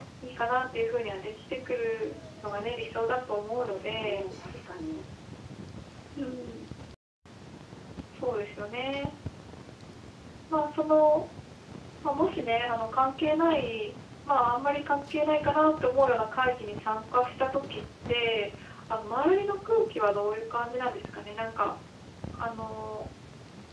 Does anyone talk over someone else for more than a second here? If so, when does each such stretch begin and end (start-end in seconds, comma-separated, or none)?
3.0-4.2